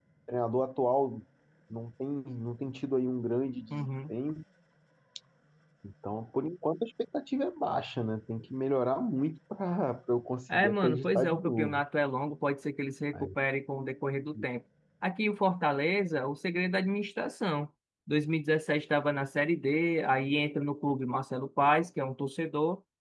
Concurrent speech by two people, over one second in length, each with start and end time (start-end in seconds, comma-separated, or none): 10.5-11.8